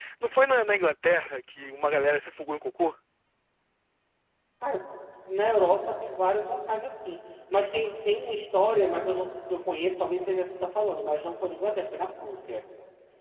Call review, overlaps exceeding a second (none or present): none